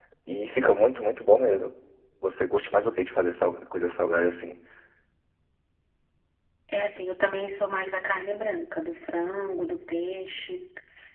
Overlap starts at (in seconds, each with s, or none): none